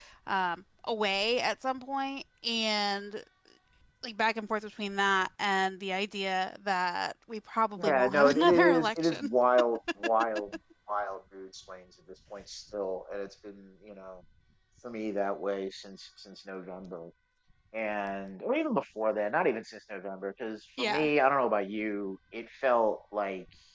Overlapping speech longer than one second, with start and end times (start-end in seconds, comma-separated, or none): 7.8-9.3